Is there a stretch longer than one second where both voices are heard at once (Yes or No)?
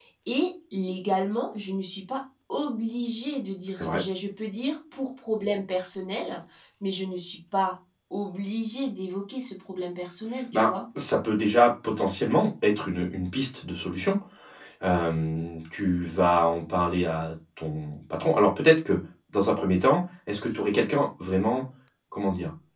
No